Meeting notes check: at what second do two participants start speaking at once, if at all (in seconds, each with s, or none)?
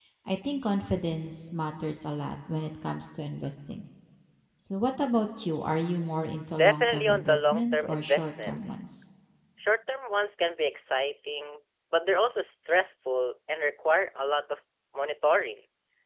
6.6 s